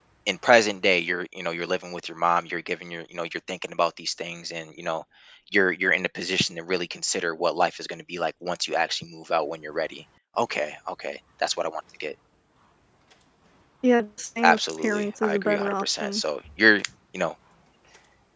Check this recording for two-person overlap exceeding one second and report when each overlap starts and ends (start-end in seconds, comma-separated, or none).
14.4-16.2